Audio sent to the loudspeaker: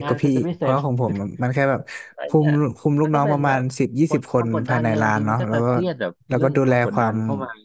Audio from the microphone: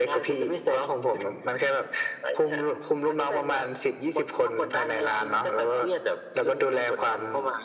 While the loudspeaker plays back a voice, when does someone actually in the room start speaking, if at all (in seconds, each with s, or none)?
none